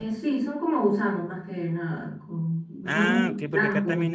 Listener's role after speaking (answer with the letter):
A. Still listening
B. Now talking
B